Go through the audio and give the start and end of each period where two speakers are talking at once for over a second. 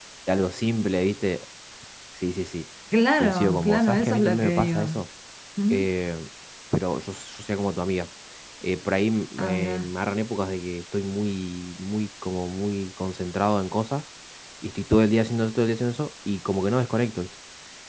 3.2-5.0

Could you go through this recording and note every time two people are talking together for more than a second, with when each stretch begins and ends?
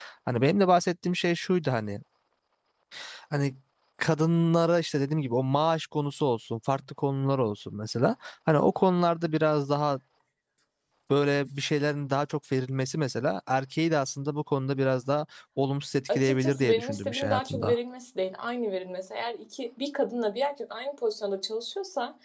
16.2-17.8

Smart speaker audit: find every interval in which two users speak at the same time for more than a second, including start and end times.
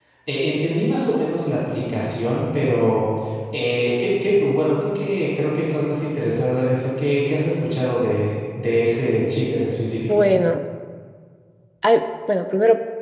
none

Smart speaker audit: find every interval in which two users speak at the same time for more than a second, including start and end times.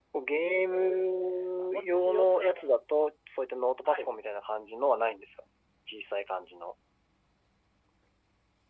0.7-2.4

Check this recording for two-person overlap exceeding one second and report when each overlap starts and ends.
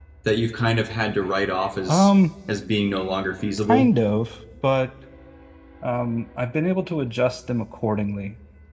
none

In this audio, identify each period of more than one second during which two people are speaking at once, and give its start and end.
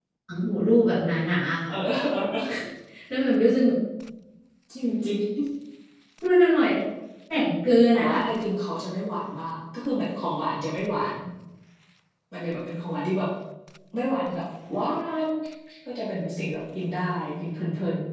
none

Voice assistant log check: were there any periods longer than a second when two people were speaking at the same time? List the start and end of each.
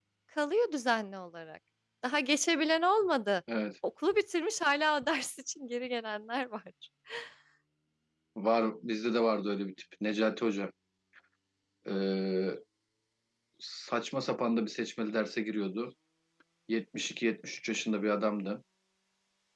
none

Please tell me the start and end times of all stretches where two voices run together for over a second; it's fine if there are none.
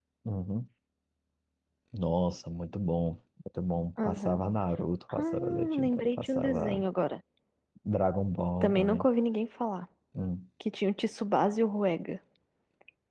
5.1-6.8

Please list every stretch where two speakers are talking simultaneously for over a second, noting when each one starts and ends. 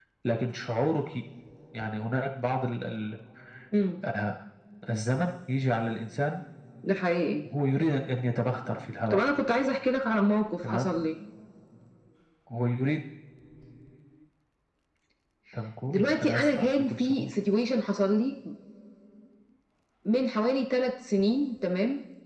15.9-17.3

